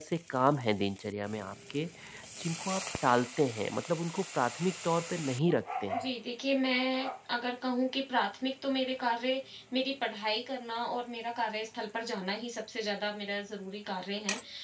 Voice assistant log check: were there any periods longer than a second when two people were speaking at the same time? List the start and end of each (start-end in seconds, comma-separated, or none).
none